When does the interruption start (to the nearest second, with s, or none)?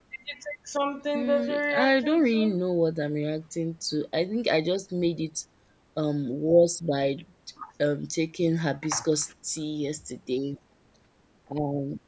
1 s